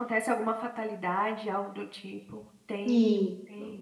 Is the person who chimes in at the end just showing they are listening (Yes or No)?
No